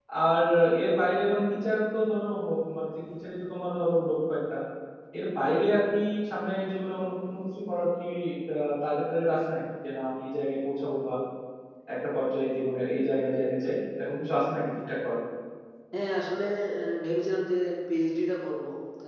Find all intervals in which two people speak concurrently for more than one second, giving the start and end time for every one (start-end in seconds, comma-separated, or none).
none